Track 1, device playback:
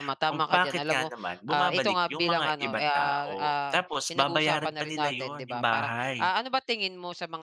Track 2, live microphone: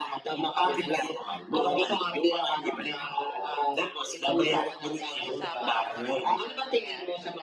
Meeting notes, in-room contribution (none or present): present